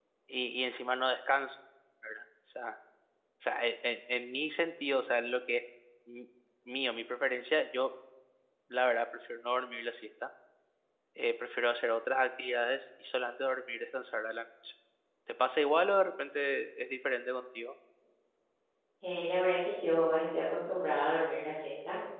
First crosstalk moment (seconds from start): none

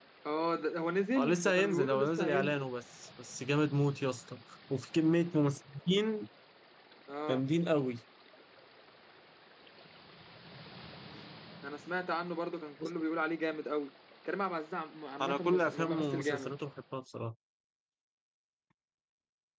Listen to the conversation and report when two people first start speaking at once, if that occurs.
1 s

